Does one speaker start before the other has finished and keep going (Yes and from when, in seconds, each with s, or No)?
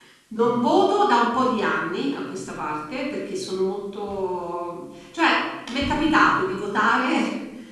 No